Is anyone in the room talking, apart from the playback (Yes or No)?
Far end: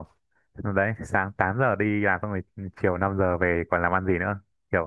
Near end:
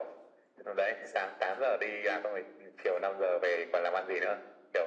No